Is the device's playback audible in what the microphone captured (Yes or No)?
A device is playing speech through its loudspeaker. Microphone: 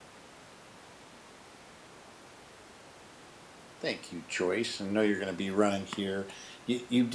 No